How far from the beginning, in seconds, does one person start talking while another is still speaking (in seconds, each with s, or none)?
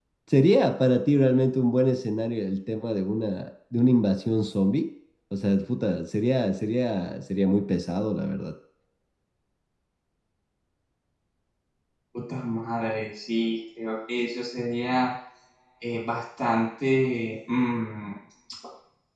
none